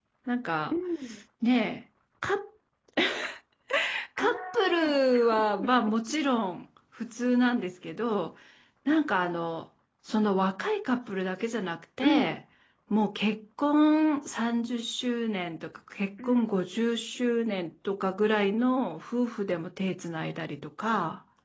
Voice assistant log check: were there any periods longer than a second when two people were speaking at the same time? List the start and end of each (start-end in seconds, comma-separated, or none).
4.2-5.9